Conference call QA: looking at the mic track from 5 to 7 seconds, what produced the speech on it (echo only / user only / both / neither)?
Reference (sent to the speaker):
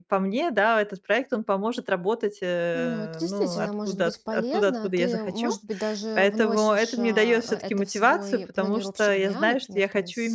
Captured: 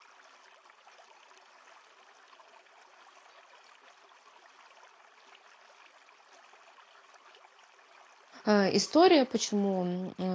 neither